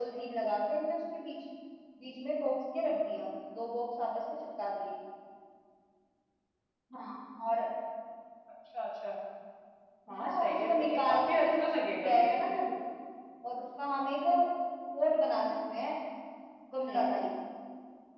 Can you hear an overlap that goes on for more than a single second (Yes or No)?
Yes